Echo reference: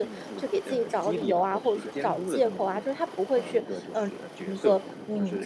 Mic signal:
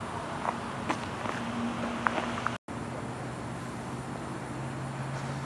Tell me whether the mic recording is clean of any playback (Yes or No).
Yes